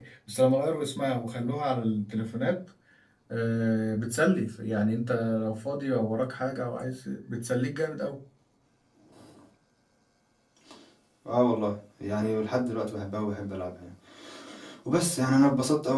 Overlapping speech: No

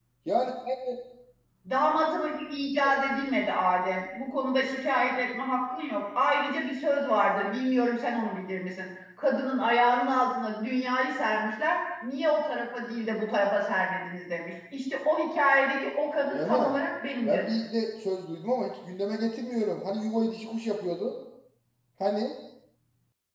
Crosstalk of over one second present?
No

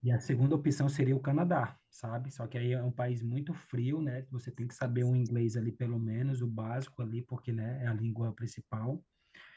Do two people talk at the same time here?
No

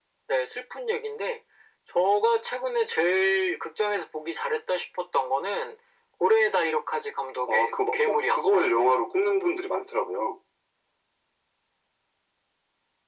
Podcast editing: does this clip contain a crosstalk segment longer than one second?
Yes, from 7.5 s

